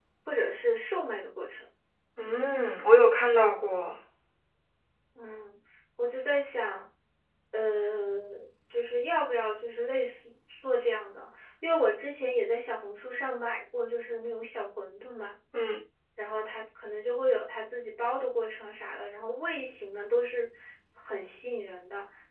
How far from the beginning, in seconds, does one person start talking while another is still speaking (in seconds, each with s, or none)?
none